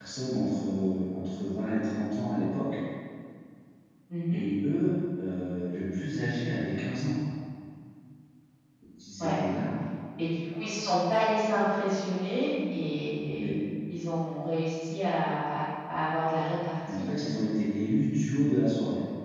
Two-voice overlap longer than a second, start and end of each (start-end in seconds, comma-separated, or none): none